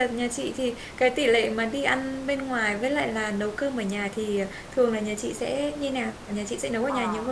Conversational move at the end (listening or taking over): taking over